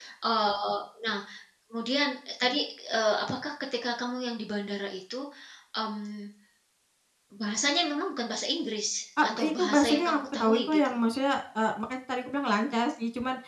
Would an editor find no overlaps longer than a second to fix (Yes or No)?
No